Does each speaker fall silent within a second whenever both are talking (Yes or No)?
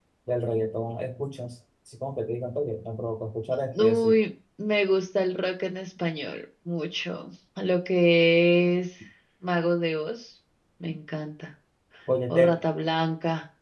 Yes